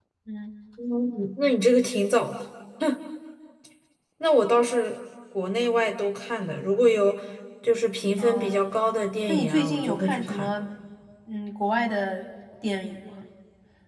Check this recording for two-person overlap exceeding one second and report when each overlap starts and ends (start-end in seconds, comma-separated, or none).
9.3-10.5